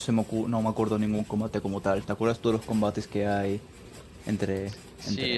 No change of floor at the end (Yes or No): No